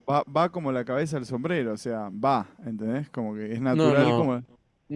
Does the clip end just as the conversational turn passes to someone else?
Yes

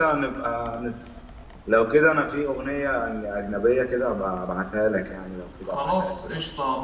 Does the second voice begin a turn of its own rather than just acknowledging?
Yes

